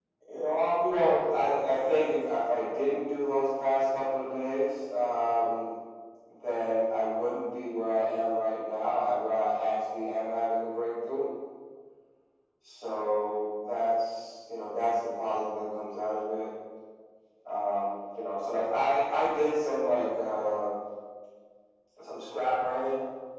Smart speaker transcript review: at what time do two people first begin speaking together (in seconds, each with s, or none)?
0.9 s